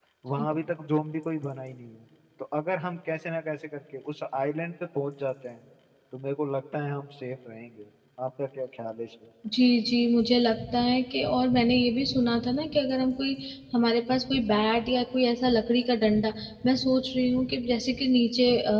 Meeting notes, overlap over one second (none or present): none